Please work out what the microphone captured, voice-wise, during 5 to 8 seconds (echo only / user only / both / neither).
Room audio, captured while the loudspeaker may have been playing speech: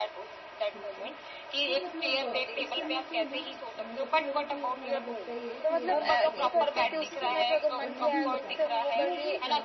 both